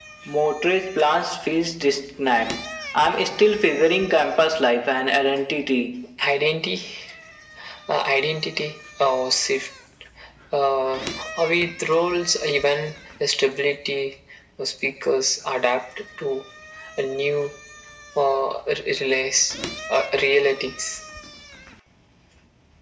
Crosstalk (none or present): none